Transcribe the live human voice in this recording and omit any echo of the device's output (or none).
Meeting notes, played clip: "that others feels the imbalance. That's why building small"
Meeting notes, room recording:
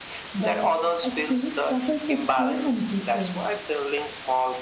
but I still struggle to stay consistent.